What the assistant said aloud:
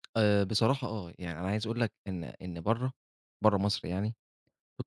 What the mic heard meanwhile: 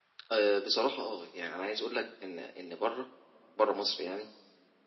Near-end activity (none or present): none